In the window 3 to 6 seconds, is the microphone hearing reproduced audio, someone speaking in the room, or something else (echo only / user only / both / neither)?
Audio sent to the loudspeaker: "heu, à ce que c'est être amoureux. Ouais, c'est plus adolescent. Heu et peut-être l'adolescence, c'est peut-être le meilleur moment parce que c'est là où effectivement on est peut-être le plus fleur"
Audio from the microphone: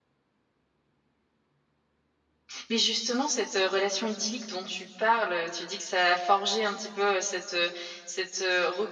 user only